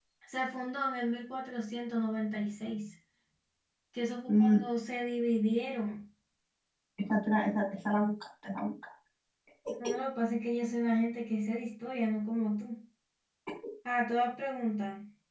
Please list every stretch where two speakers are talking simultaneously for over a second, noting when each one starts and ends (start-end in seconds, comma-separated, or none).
none